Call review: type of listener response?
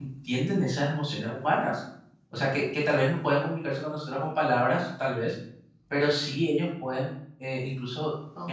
listening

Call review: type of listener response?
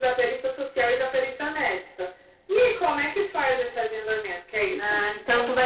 taking over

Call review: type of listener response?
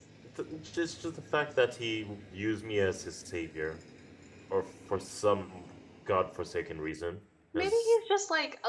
taking over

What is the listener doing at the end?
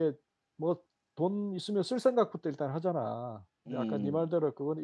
listening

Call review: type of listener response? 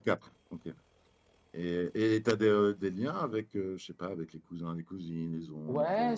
taking over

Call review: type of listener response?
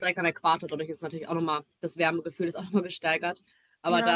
listening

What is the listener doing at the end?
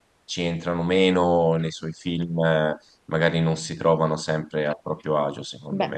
taking over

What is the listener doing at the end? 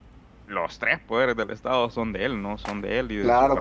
taking over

